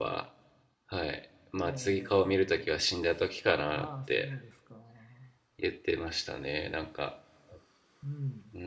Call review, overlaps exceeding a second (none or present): present